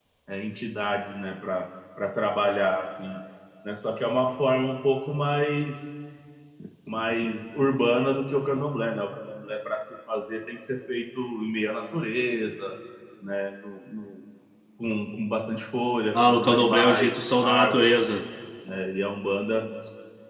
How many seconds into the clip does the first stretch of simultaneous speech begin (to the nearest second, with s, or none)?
16 s